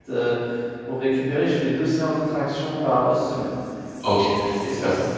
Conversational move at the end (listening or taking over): taking over